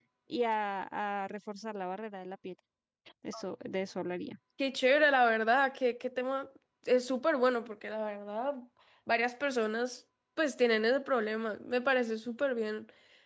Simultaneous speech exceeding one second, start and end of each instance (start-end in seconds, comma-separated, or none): none